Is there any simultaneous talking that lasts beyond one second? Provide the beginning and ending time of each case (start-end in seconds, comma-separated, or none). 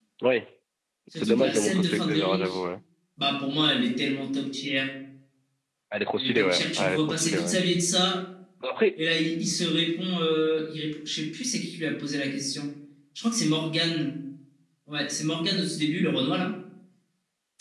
1.1-2.6, 6.2-7.6